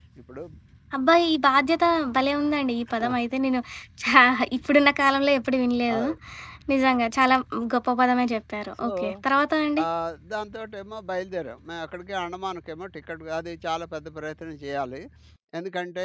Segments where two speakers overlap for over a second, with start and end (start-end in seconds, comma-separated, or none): none